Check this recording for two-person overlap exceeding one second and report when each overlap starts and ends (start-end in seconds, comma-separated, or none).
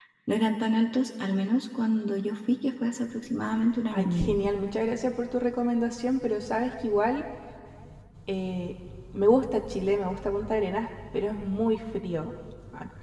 none